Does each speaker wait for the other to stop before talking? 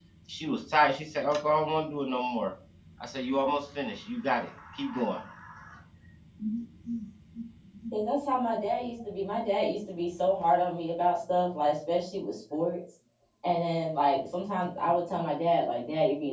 Yes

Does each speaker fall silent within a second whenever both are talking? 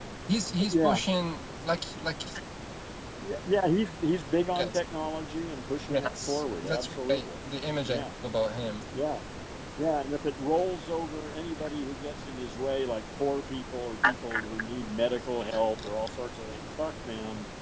No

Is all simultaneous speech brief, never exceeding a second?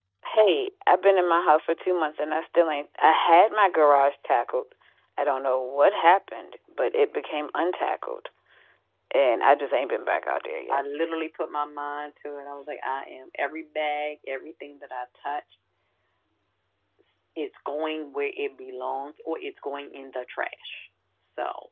Yes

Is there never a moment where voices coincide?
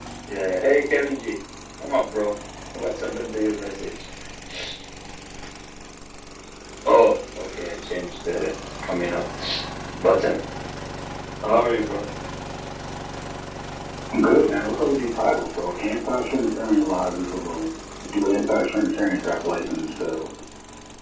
Yes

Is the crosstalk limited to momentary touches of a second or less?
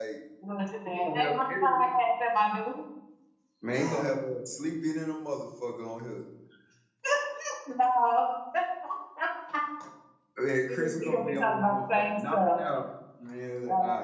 No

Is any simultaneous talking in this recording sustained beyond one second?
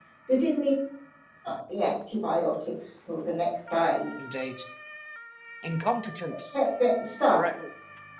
No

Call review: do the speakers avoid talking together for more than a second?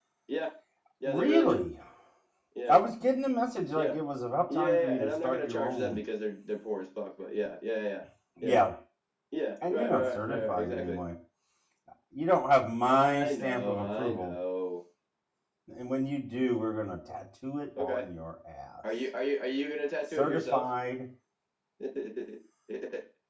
No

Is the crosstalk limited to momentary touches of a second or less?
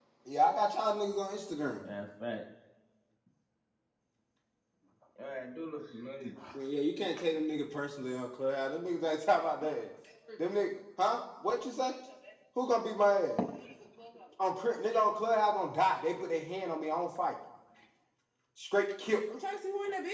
Yes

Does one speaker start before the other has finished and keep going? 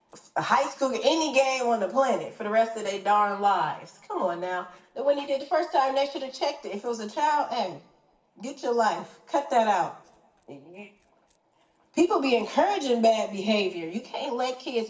No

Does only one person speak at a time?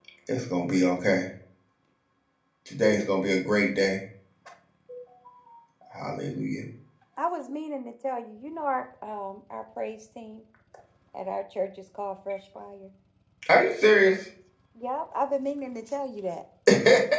Yes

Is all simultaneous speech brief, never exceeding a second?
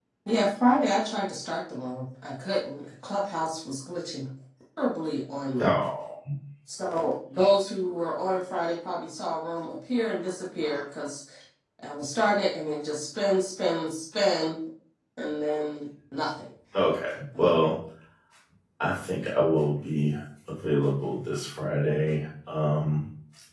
Yes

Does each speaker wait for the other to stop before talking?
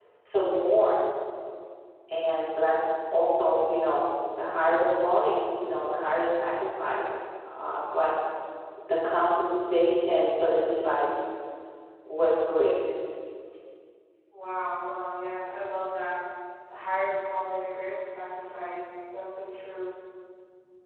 Yes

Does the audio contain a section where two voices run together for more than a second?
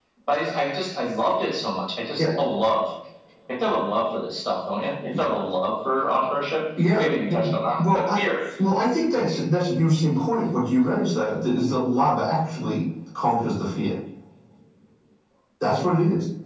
Yes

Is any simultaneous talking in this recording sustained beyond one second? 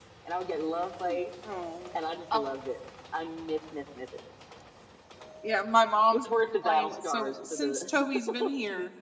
Yes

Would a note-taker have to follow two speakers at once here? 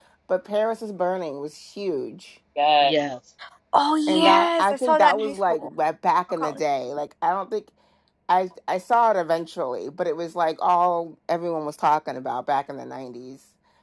Yes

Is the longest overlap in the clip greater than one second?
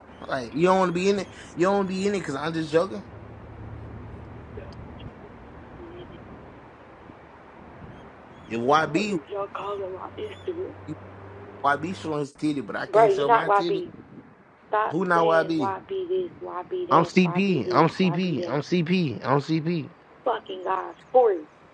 Yes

